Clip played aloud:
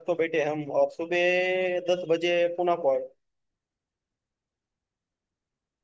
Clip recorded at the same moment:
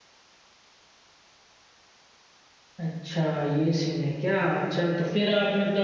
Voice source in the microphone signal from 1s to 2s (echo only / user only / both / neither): neither